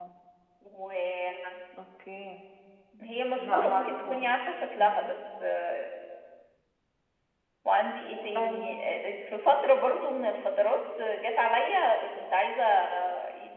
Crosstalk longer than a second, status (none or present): present